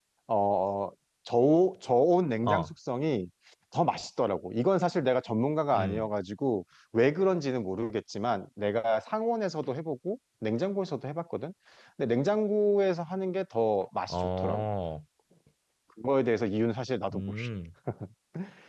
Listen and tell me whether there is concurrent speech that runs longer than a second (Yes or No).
No